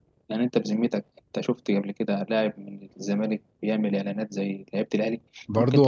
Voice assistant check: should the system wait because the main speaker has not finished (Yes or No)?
No